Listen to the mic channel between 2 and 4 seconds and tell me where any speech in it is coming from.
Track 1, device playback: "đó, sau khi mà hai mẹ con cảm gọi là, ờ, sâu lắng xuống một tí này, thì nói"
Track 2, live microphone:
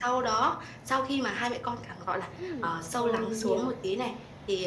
both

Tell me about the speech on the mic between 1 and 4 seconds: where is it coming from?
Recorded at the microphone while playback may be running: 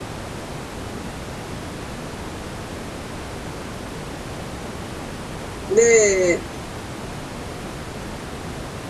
neither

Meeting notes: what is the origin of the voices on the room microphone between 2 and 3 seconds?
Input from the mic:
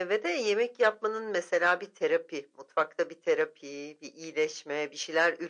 echo only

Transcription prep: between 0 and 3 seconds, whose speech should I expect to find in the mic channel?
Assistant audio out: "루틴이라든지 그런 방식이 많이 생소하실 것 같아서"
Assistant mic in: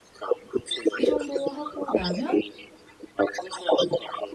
both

